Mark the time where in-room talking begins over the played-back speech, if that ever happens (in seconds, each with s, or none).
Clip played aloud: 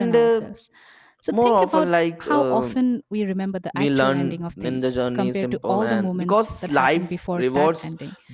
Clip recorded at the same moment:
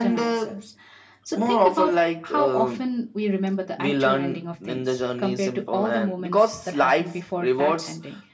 none